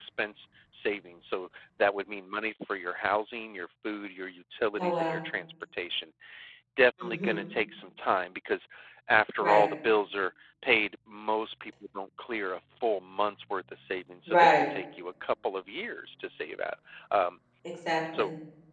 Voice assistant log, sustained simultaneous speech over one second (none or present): none